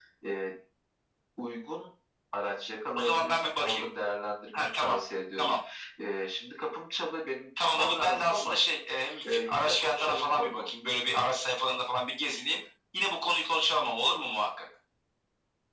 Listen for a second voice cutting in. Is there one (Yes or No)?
Yes